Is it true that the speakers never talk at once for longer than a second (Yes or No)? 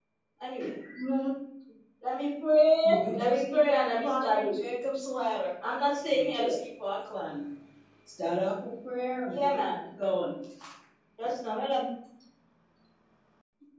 No